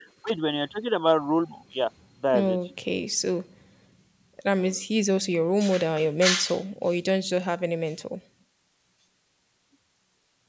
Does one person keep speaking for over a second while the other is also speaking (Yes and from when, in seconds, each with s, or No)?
No